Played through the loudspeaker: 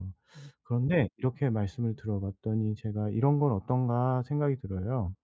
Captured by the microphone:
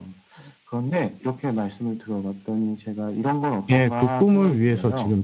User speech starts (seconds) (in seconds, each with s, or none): 3.7 s